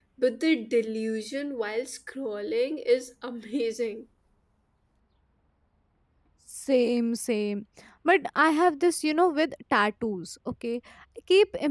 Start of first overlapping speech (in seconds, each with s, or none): none